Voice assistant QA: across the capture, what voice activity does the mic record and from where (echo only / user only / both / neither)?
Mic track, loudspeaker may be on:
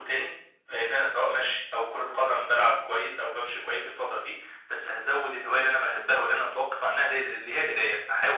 echo only